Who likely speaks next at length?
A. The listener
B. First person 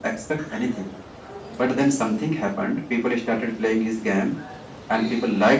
B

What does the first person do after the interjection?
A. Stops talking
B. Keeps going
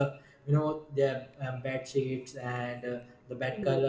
B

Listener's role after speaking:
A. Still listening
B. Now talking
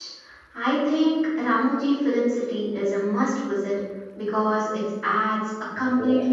A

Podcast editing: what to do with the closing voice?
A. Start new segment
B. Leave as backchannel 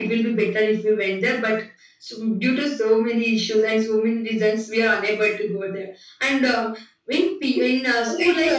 A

